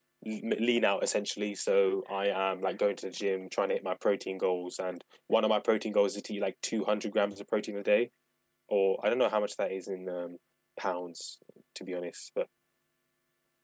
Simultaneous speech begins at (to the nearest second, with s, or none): none